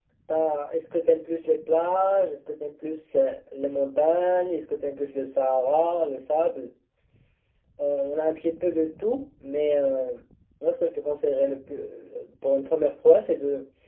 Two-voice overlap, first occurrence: none

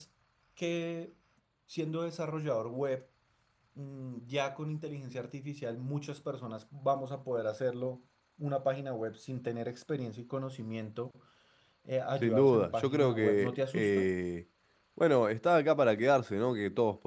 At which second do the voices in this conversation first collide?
12.2 s

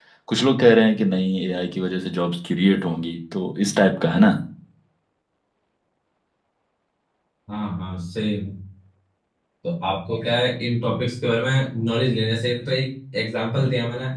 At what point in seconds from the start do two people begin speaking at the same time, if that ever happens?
none

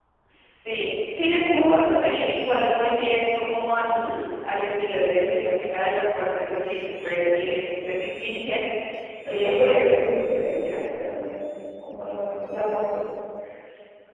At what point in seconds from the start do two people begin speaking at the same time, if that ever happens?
9.2 s

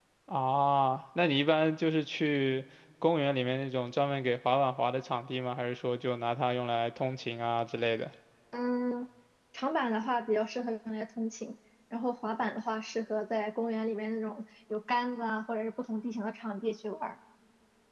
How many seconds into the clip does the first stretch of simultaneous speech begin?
none

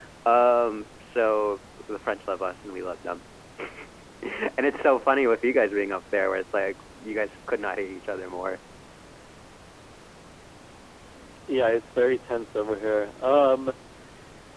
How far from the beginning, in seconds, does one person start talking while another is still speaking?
none

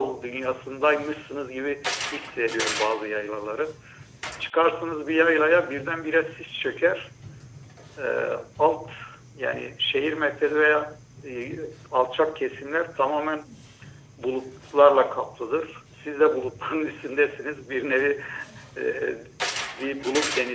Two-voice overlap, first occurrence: none

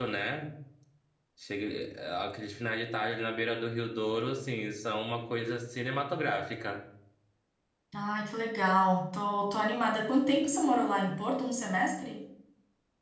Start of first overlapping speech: none

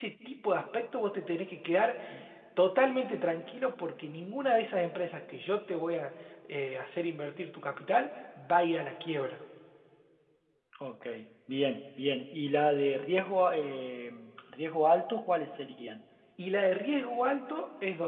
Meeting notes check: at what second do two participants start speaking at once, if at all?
none

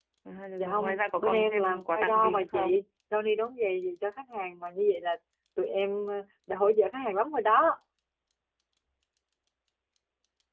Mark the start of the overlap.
0.6 s

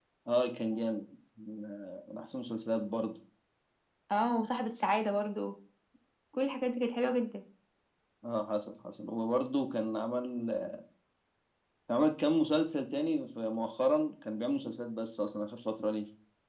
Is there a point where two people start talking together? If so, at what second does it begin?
none

